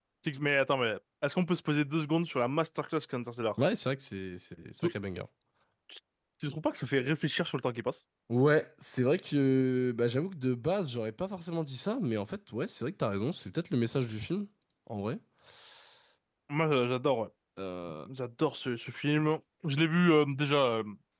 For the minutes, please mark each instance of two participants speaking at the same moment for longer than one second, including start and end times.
none

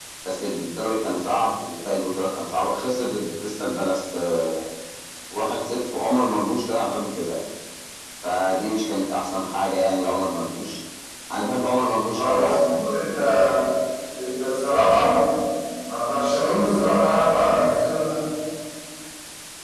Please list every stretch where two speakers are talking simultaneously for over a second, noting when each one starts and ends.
none

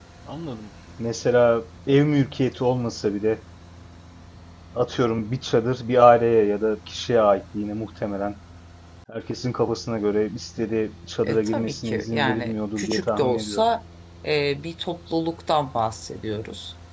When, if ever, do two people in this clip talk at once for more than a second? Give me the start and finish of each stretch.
11.3-13.6

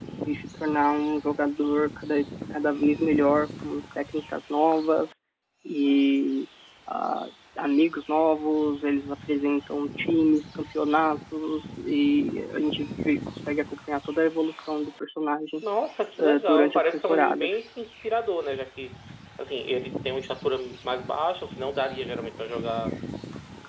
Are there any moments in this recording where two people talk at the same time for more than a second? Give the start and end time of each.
16.2-17.5

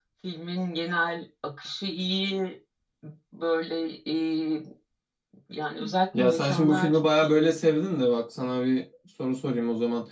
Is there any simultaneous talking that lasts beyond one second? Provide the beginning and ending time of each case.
6.2-7.6

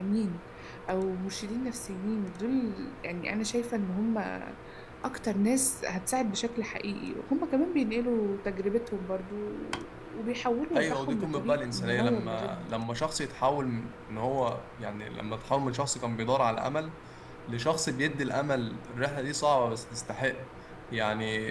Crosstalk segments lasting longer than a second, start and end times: 10.7-12.7

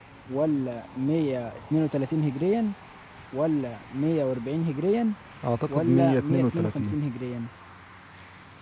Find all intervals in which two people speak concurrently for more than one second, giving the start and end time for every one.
5.7-7.0

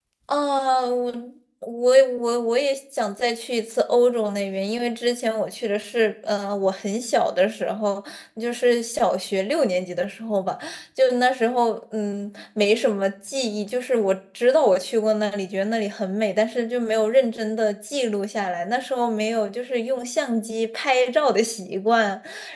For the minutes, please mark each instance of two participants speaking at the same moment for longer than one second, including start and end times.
none

